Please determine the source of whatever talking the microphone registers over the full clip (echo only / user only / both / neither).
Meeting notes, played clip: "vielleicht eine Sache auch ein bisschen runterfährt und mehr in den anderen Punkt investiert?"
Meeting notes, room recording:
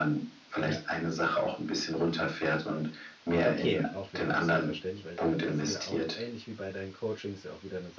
both